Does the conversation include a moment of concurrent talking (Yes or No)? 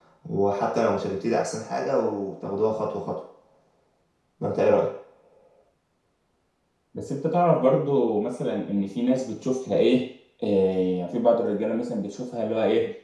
No